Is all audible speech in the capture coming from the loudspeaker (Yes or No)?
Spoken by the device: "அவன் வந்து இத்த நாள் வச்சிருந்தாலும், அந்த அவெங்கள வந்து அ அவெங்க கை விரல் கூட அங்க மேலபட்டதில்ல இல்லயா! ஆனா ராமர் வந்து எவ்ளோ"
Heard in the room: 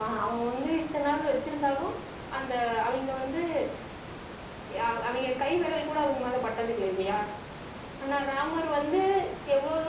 Yes